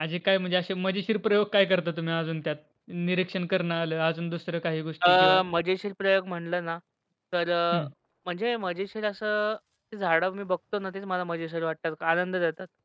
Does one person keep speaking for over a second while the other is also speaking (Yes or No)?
No